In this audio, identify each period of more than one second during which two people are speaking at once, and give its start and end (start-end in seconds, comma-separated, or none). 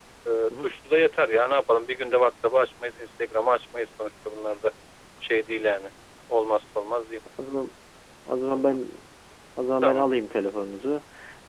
none